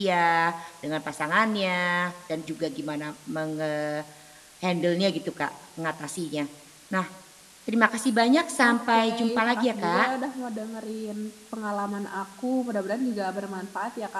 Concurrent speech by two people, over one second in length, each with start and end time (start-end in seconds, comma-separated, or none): 8.6-10.1